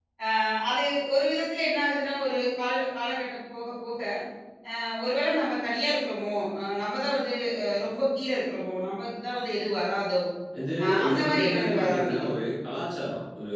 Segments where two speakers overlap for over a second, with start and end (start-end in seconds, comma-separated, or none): 10.8-12.3